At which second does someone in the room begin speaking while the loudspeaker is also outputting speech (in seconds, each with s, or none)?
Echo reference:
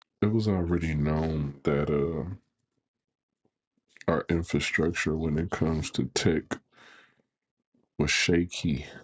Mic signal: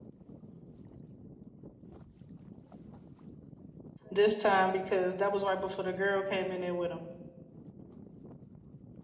4.1 s